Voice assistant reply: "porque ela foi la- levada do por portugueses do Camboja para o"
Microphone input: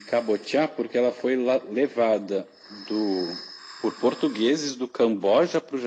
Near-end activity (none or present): none